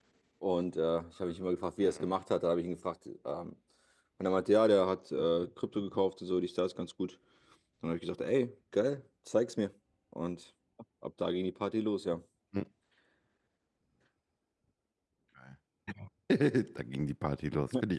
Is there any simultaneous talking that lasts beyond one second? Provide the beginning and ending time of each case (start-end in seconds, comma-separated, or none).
none